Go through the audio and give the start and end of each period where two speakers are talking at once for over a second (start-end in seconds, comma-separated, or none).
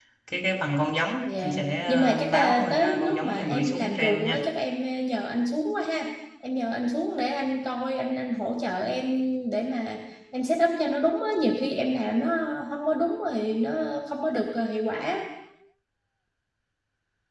1.4-4.4